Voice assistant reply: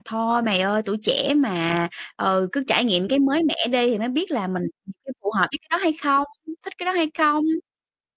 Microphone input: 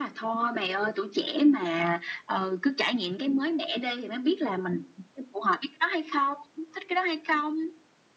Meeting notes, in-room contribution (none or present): none